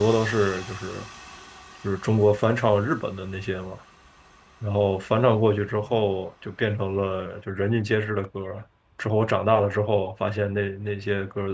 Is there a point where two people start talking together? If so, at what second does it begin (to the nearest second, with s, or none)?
none